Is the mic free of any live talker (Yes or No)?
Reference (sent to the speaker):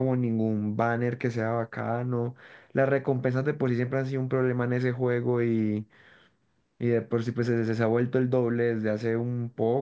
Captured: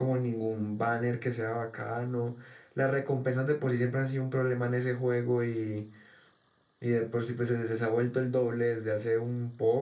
Yes